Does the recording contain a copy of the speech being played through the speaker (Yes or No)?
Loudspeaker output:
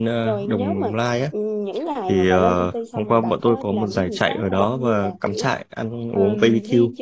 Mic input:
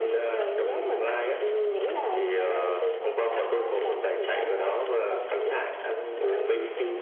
Yes